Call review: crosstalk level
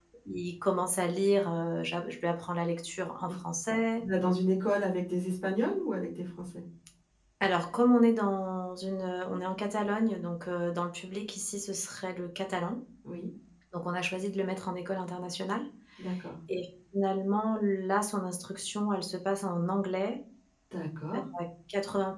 none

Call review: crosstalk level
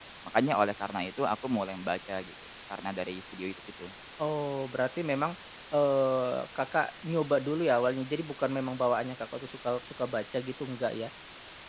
none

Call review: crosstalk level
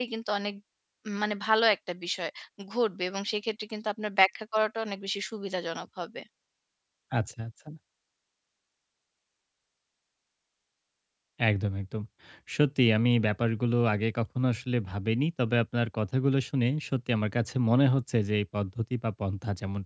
none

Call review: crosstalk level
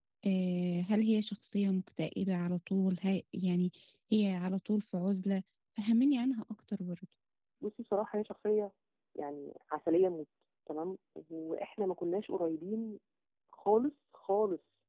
none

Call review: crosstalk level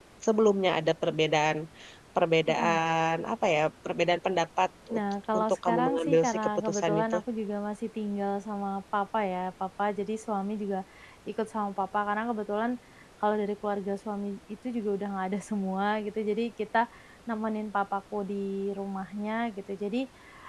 present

